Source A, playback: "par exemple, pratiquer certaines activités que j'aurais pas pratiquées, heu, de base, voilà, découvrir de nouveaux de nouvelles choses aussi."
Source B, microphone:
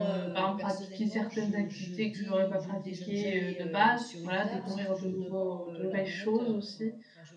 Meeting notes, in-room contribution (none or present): present